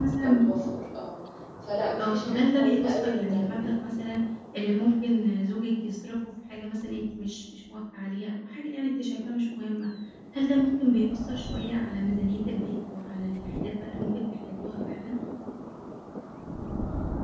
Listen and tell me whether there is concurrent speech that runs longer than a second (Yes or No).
Yes